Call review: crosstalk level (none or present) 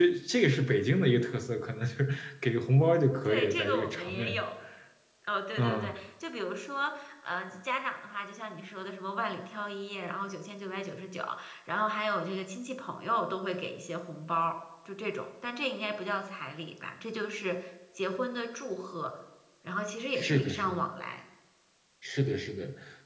present